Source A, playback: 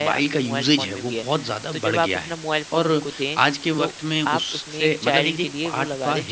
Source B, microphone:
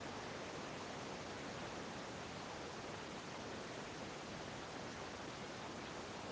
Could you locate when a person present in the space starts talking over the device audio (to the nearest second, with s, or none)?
none